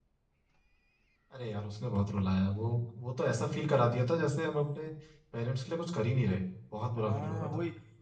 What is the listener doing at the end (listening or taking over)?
taking over